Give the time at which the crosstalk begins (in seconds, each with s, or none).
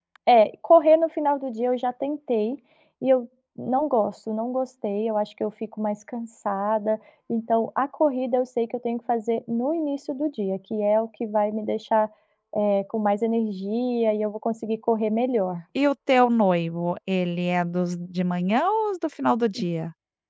none